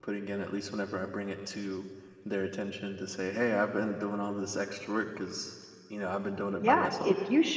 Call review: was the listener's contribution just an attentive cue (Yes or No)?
No